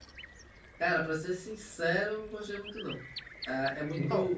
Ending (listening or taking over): listening